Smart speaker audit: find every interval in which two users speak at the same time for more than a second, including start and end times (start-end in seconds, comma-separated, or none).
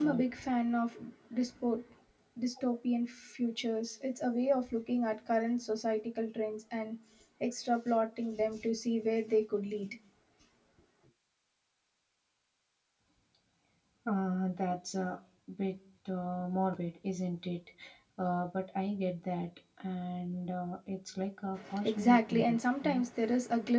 21.8-23.1